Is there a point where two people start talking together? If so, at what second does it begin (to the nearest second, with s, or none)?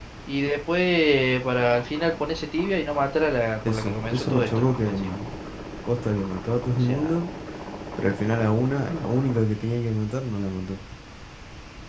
4 s